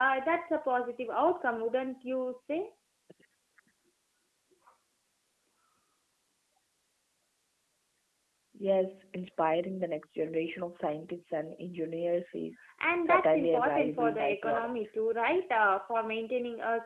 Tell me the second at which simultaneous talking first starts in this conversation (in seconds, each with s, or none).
13.0 s